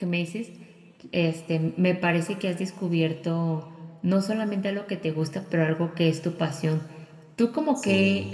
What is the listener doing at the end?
listening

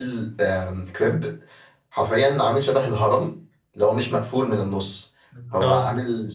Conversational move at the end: listening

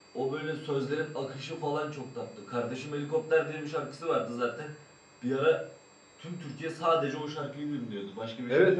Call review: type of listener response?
taking over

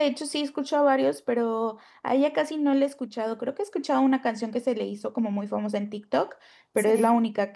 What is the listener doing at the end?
listening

